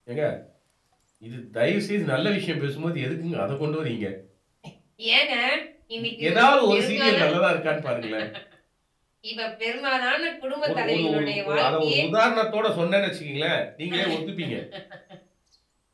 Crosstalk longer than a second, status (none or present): present